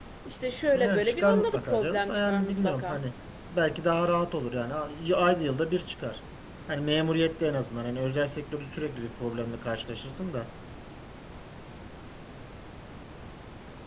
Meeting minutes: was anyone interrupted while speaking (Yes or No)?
Yes